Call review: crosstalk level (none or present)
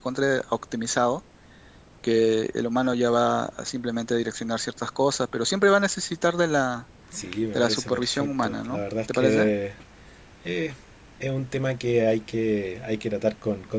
present